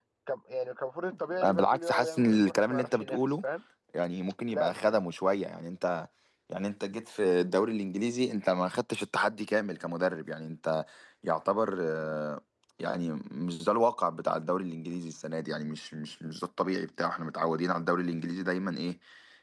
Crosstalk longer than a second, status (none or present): present